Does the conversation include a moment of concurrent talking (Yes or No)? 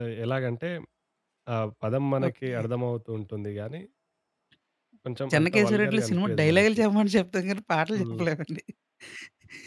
Yes